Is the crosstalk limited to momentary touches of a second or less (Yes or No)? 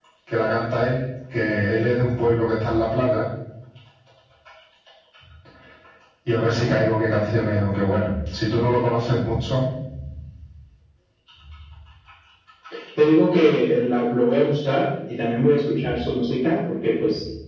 Yes